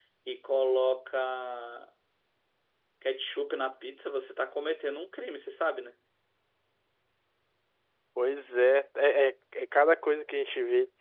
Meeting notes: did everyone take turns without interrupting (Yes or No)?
Yes